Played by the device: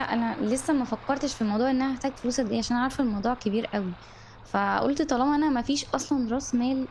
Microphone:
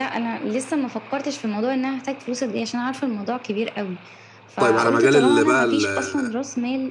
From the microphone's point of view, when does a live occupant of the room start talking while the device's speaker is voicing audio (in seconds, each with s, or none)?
4.6 s